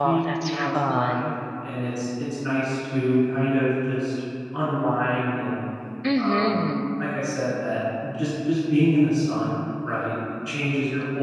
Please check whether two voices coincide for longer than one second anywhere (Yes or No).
Yes